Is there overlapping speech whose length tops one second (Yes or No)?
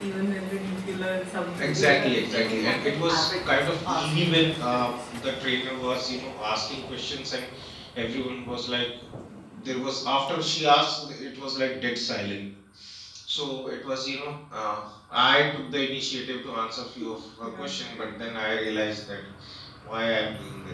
Yes